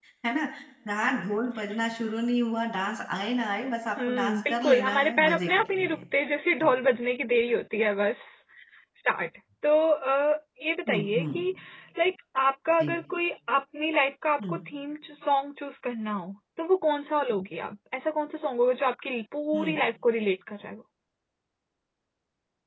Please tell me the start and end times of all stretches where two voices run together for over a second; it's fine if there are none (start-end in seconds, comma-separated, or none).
4.1-6.0